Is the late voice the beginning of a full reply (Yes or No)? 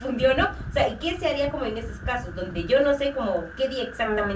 Yes